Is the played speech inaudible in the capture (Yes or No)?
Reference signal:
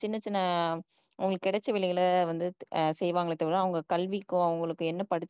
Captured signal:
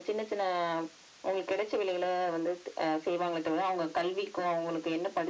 No